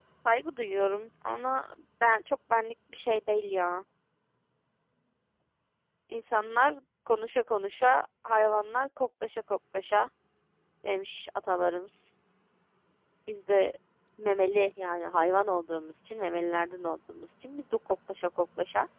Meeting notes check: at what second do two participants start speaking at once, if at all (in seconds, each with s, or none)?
none